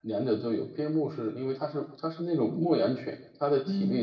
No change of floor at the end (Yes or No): Yes